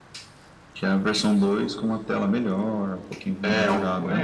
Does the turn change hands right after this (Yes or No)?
Yes